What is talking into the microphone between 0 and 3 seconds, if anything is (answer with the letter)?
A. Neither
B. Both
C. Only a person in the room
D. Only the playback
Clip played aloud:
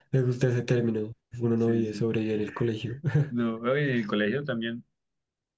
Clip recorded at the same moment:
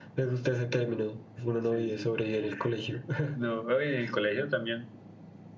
D